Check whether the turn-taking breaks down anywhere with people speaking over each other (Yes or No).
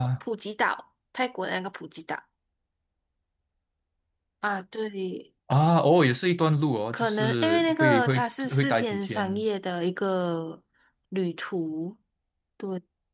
Yes